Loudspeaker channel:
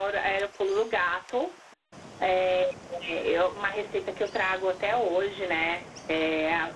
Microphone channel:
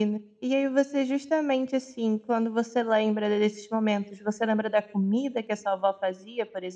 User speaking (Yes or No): Yes